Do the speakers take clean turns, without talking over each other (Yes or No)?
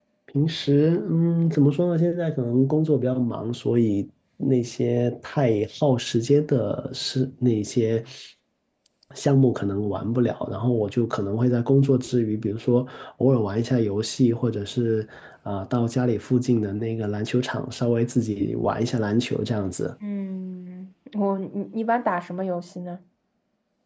Yes